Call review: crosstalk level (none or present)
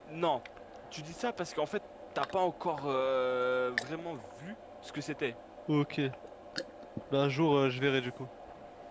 none